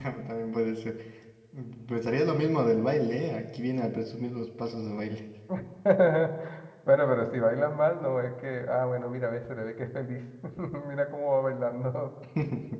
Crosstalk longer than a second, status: none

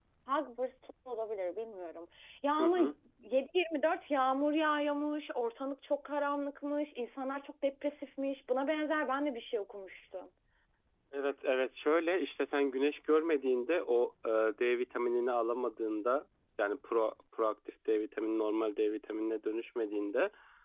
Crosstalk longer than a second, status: none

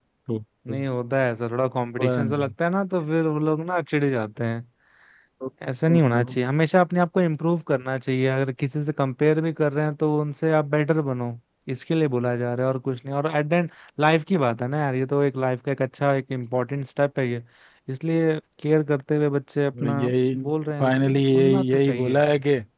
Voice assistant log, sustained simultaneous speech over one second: present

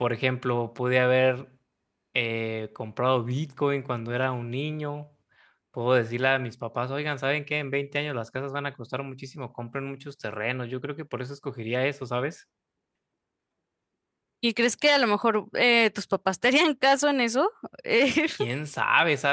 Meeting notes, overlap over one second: none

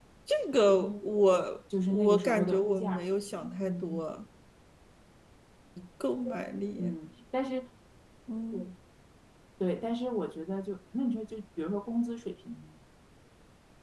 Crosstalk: present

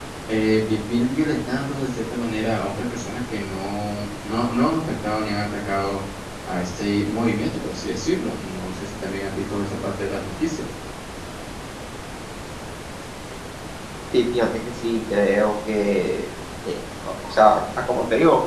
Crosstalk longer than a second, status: none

